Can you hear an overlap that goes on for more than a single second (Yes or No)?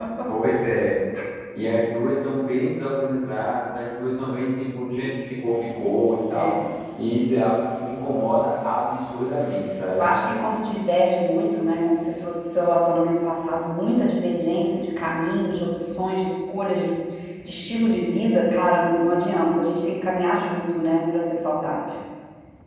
No